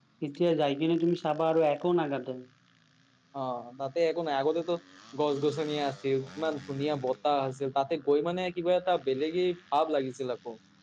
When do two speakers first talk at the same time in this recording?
none

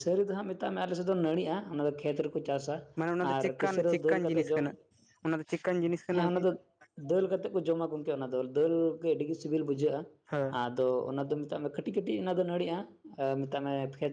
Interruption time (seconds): 3 s

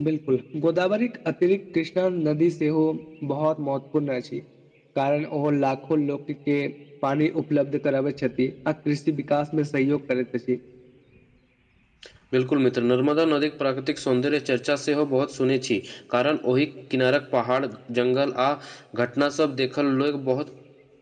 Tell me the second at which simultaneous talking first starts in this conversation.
none

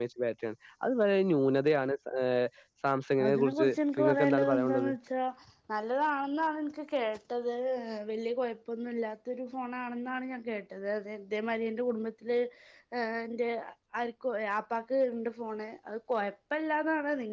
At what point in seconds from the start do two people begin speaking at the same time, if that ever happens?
3 s

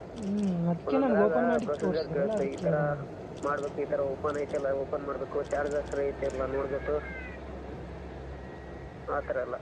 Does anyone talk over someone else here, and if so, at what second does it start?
1 s

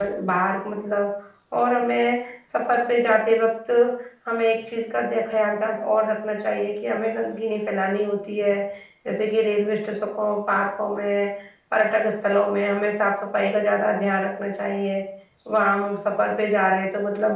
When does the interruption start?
none

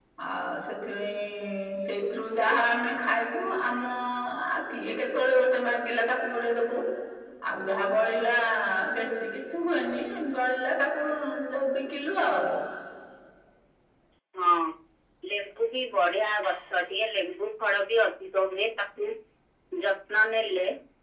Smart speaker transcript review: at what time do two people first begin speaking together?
none

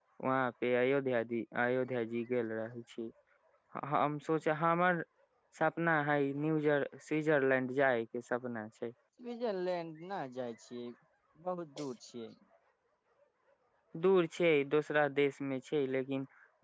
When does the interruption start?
none

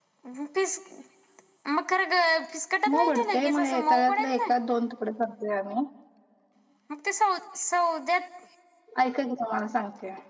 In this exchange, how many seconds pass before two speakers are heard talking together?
3 s

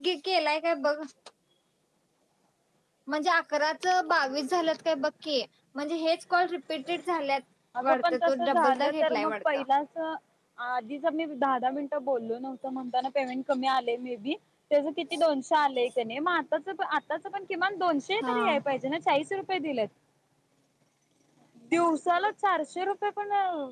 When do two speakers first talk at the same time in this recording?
8 s

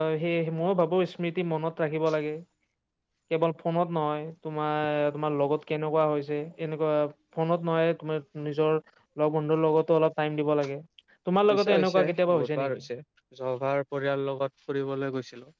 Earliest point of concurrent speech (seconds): 11 s

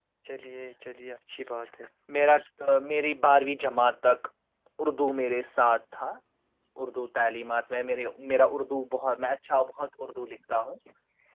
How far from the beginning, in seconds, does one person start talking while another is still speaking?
none

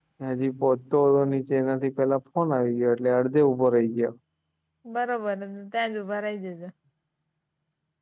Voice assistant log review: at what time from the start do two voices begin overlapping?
none

